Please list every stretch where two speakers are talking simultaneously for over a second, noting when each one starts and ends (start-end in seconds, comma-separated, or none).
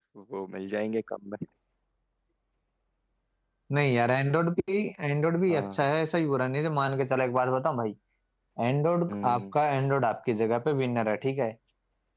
none